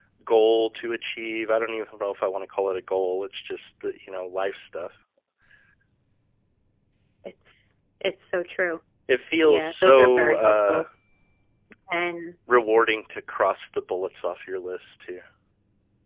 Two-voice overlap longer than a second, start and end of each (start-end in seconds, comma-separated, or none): 9.5-10.8